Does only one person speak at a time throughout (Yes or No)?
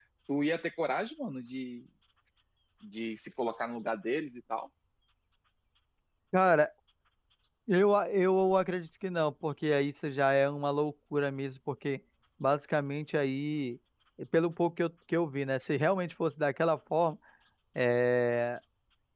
Yes